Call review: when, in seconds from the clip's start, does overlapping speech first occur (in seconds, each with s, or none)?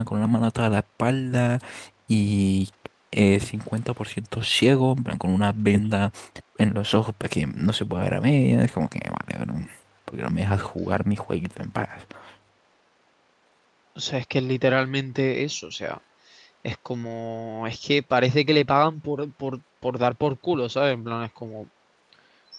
none